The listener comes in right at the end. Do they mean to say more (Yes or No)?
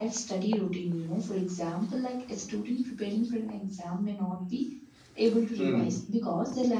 No